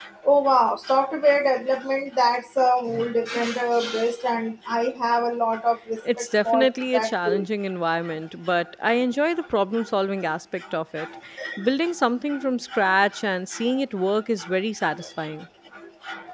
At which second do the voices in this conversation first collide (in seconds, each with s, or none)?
6.0 s